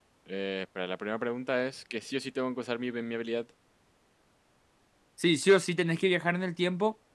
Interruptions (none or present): none